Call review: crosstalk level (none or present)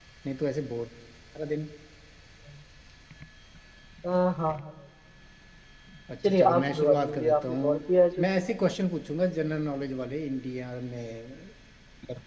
present